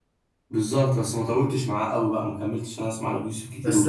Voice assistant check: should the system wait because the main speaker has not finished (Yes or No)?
No